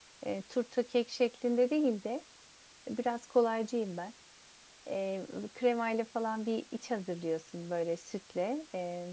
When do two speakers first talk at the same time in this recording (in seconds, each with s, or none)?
none